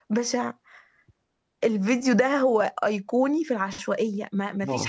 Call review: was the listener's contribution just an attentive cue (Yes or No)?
Yes